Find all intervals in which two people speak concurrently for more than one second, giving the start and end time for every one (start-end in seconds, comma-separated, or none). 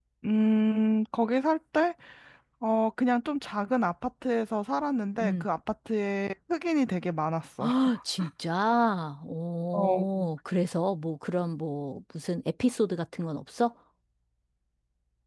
none